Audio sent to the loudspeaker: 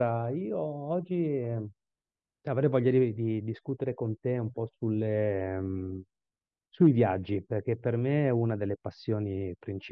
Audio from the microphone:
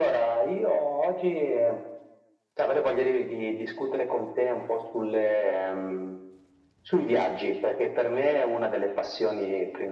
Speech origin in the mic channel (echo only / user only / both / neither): echo only